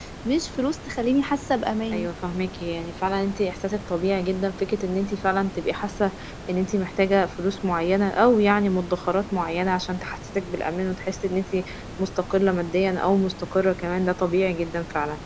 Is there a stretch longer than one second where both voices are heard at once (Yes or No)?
No